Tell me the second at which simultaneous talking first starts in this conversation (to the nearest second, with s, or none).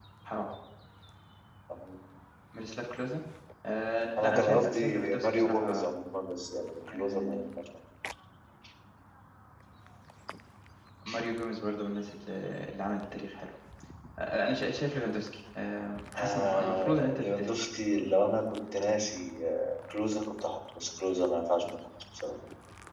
4 s